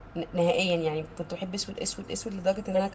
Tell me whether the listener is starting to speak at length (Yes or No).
Yes